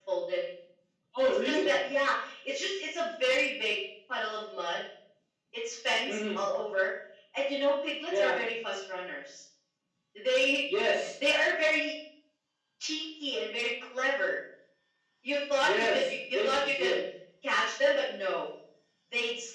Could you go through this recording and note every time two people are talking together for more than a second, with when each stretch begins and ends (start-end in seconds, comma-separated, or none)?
15.6-16.9